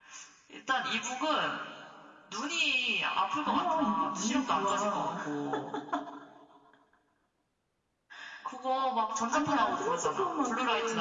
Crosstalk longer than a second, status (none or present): present